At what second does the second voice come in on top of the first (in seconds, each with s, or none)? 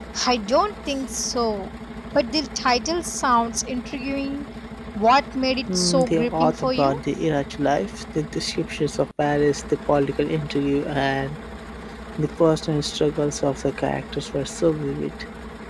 5.7 s